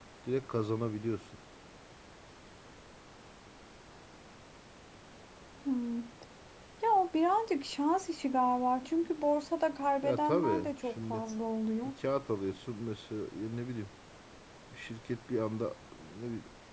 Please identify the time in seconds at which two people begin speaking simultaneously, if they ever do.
10.0 s

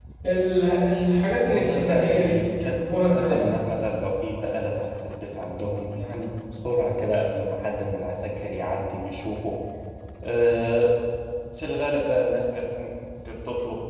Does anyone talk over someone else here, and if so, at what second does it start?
1.5 s

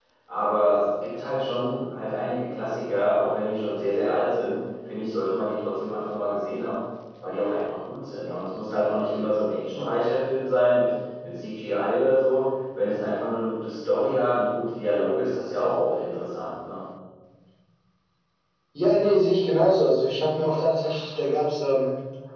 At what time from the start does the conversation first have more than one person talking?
none

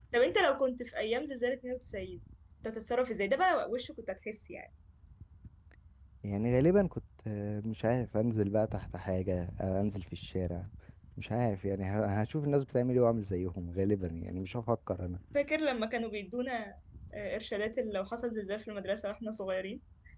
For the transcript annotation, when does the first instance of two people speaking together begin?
none

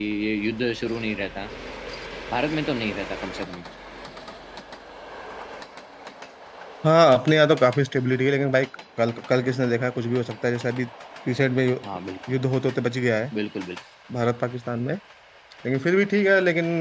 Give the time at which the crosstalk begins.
none

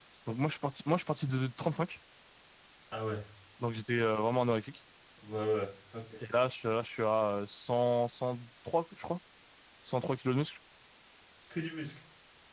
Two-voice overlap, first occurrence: none

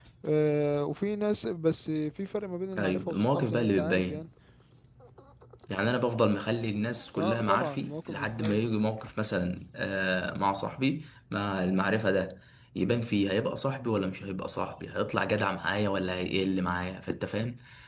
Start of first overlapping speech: 2.8 s

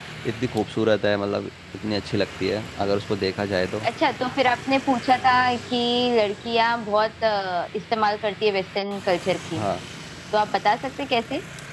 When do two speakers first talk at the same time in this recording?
none

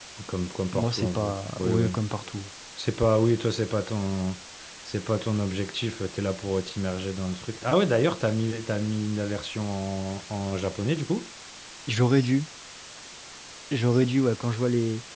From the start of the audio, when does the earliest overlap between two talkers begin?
0.7 s

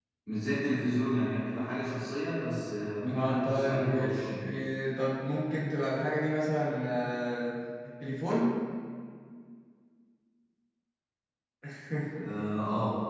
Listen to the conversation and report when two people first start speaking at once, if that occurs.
3.1 s

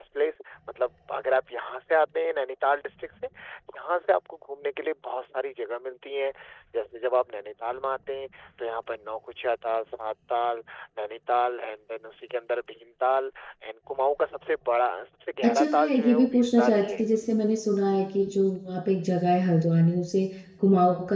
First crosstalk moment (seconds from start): 15.4 s

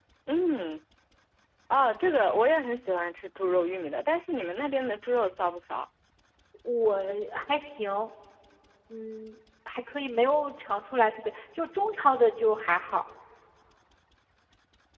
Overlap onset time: none

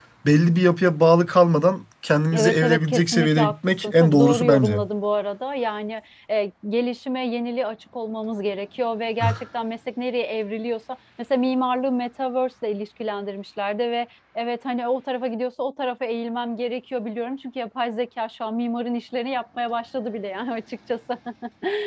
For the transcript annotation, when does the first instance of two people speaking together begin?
2.3 s

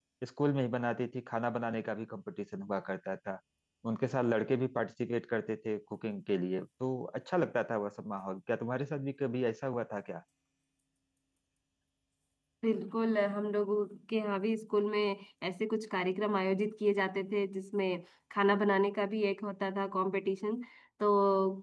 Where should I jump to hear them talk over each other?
none

